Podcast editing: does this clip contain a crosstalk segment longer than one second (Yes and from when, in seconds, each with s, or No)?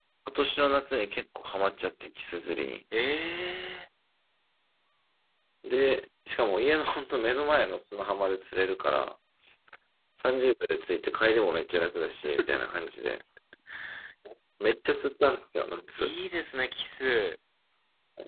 No